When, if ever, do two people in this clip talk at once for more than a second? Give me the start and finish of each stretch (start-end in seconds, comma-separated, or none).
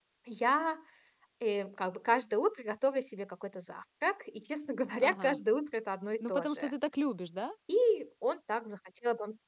none